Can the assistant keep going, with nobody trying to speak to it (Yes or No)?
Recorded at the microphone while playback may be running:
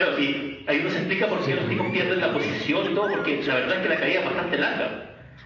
No